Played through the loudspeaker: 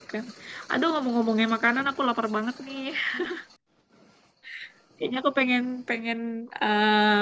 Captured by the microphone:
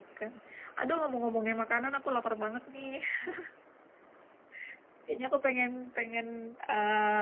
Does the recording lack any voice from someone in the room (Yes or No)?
Yes